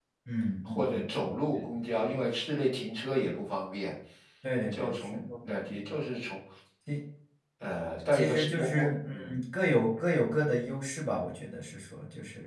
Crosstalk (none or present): present